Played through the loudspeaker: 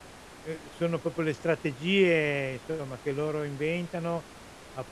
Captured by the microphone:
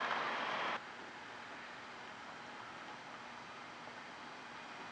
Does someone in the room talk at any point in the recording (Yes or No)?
No